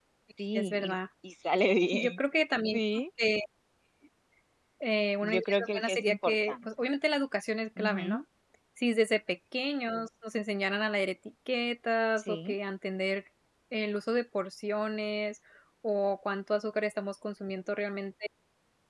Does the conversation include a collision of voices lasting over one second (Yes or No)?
Yes